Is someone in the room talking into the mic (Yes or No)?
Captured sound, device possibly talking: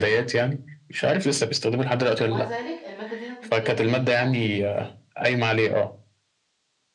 Yes